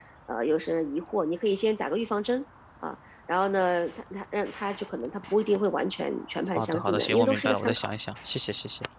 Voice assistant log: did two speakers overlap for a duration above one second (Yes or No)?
Yes